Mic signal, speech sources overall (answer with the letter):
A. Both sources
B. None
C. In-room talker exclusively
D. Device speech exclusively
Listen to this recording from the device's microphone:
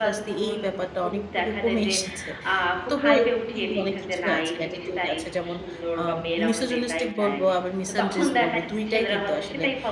A